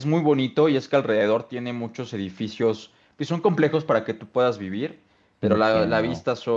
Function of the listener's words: listening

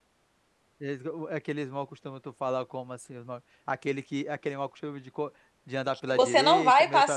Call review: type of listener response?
taking over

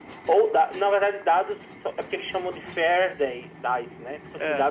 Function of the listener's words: listening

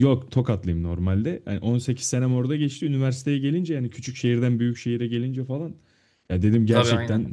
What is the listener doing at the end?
listening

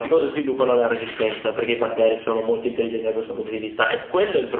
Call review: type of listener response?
listening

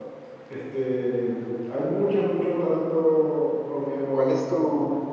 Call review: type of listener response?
taking over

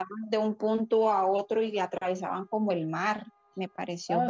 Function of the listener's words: taking over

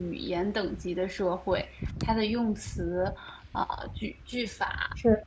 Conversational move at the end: listening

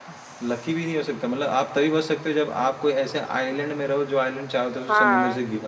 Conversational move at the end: taking over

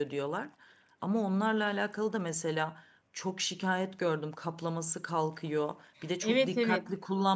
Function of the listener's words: listening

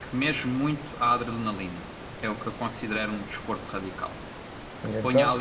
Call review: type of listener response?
listening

